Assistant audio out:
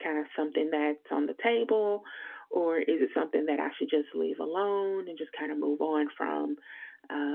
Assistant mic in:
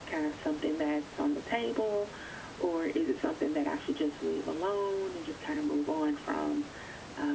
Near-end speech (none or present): none